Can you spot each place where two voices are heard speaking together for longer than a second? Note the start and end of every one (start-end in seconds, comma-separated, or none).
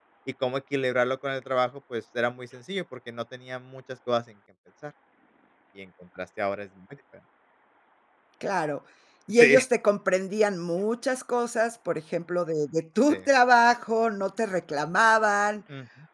none